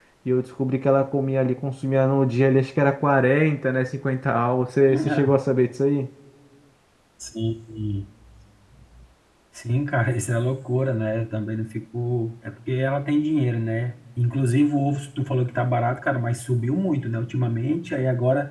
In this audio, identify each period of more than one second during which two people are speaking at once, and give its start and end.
none

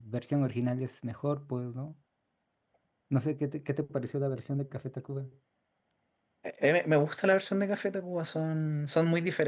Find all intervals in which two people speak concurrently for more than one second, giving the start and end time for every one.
none

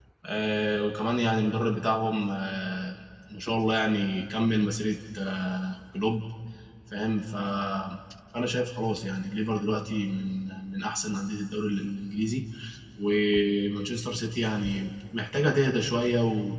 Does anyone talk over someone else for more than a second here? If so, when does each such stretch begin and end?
none

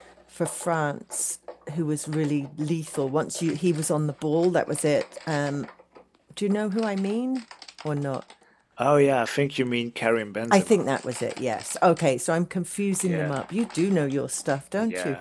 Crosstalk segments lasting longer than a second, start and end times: none

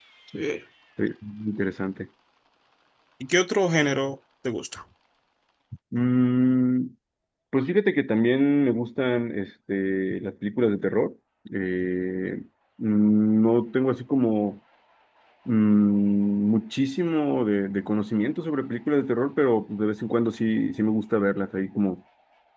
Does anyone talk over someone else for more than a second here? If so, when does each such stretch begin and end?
none

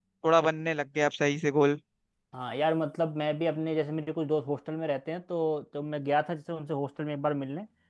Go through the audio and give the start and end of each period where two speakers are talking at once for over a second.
none

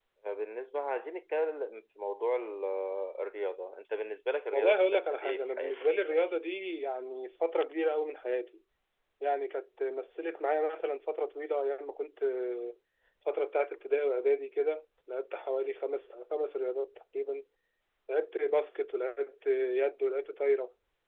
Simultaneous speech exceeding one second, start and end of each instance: 4.5-6.2

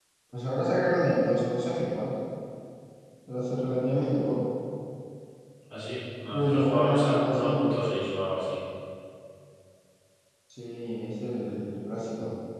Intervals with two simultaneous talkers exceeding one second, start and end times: 6.3-7.6

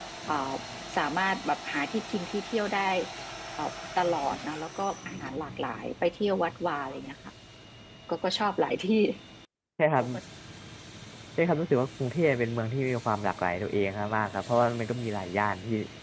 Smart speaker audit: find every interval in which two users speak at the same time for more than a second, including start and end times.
none

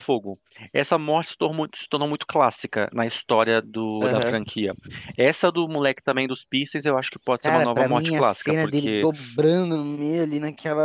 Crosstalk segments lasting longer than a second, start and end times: 7.4-9.1

